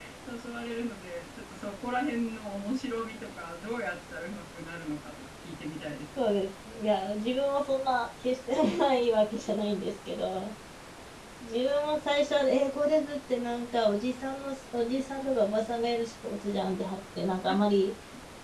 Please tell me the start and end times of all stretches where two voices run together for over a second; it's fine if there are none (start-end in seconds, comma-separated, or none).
none